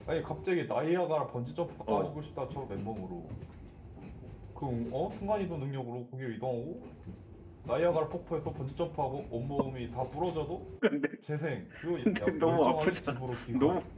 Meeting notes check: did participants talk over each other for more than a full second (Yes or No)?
Yes